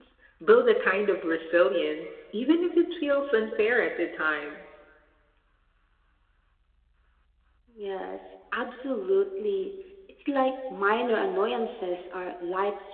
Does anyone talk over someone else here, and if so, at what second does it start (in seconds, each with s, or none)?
none